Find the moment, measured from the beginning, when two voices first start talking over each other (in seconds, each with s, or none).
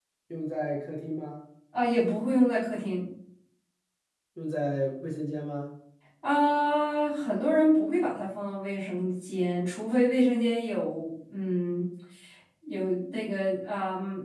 none